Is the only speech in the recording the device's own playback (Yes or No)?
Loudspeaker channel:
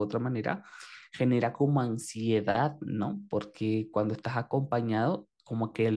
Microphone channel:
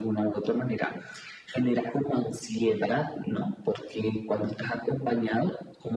Yes